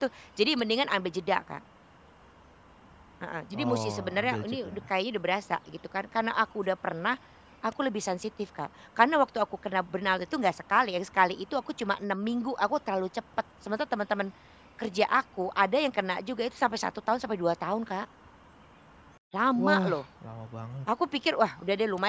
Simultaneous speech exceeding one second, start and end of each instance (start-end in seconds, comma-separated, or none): 3.5-4.8